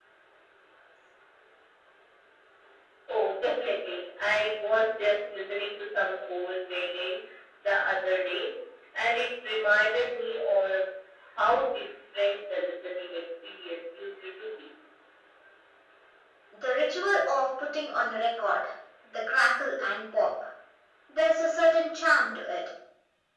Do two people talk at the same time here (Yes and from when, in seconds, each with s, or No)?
No